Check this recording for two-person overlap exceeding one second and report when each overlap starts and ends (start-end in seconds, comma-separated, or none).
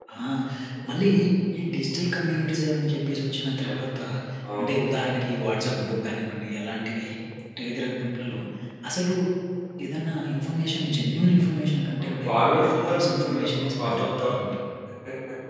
12.0-14.3